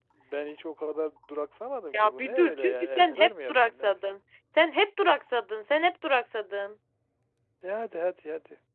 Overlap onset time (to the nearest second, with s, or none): 2 s